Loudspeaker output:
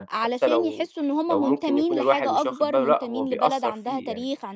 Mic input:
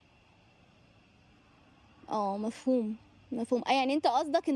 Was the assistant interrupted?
Yes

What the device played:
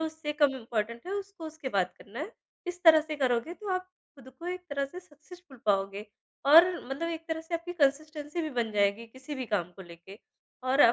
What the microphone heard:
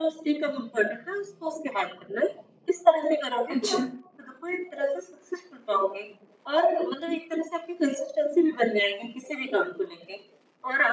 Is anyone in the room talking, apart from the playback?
Yes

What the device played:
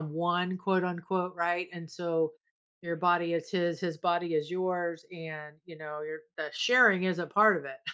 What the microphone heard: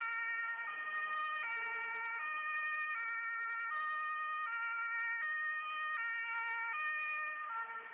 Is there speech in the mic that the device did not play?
No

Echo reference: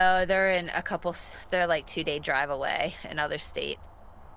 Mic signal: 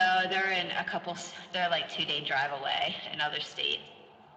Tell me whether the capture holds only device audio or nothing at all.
Yes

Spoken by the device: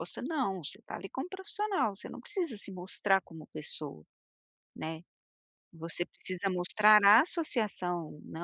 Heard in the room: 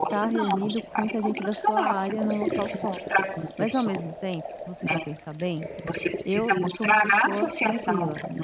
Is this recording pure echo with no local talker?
No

